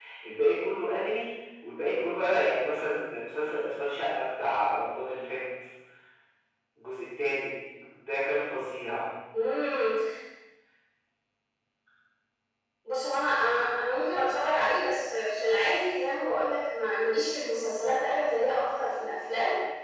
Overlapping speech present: No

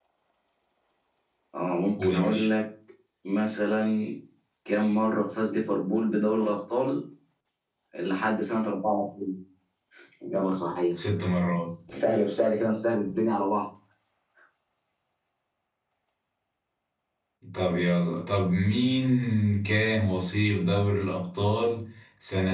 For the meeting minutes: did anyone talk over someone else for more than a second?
No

